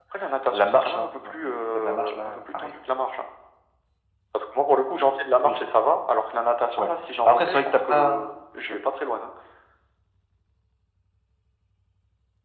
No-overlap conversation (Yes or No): No